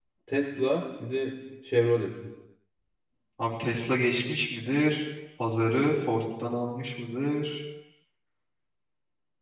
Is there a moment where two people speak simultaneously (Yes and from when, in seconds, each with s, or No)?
No